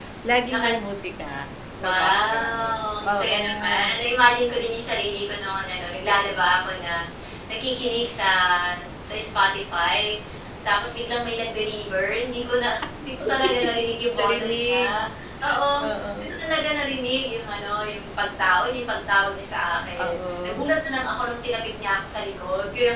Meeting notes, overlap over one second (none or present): present